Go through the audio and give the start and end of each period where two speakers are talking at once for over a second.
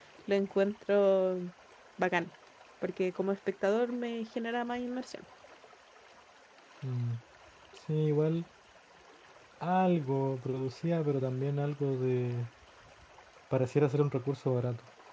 none

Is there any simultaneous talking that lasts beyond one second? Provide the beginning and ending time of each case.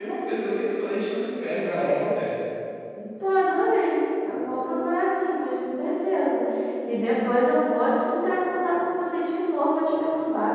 none

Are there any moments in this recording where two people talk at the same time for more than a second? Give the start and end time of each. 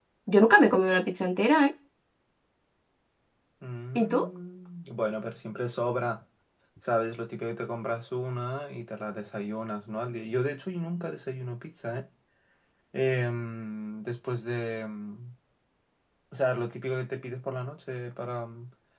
none

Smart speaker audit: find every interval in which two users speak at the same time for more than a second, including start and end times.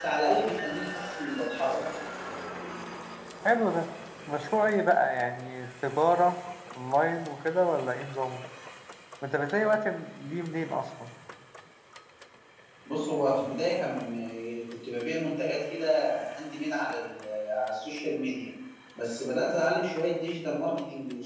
none

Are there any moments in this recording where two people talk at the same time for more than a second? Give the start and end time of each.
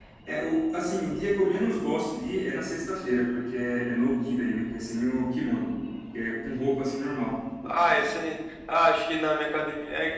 none

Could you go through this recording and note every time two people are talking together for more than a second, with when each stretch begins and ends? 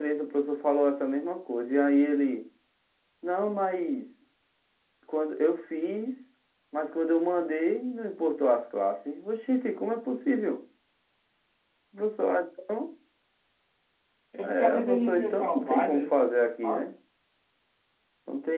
14.4-16.1

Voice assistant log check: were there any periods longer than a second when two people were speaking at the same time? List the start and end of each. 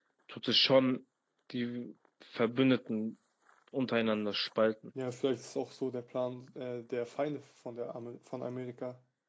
none

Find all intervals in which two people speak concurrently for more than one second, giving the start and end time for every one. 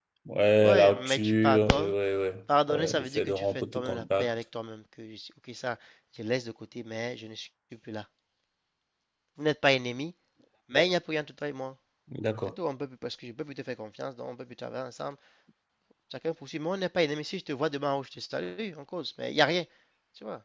0.6-1.9, 2.7-4.3

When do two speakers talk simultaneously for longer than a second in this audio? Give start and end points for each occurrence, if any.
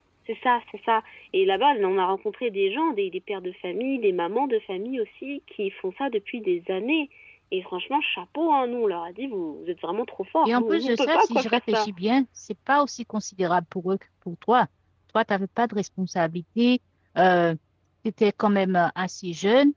10.4-11.9

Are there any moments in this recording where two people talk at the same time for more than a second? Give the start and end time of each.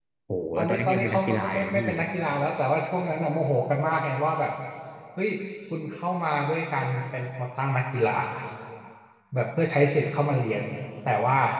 0.6-1.9

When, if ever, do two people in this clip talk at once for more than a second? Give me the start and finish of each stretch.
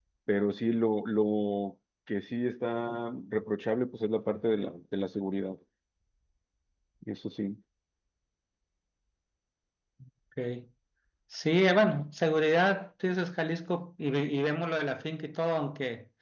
none

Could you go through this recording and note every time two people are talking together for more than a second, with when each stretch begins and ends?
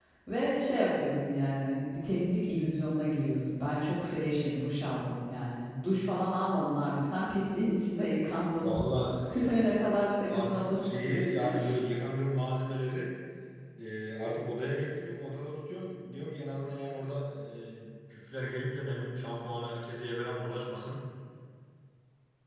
none

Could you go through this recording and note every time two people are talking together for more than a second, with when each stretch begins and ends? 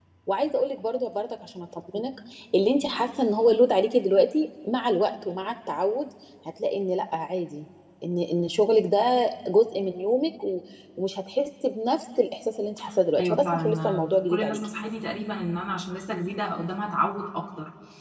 13.2-14.7

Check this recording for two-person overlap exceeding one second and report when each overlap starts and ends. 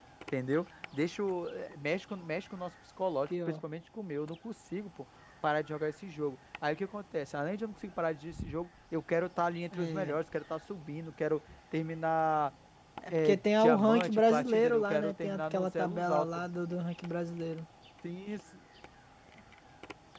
13.1-16.4

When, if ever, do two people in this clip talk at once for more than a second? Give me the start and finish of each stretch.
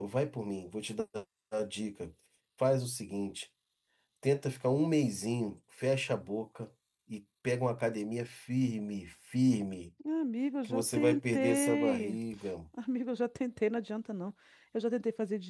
10.6-12.2

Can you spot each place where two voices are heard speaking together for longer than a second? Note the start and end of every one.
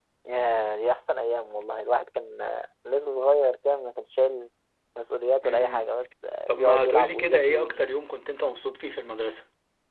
6.5-7.8

